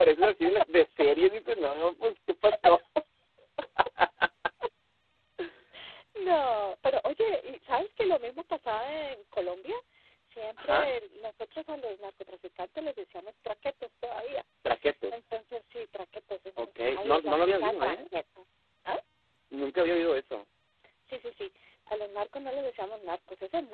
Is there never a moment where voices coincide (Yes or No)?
No